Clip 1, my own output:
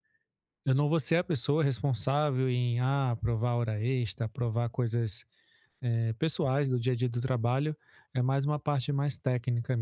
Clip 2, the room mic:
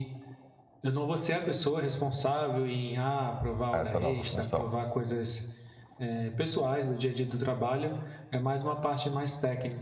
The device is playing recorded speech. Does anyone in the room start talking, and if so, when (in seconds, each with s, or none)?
3.7 s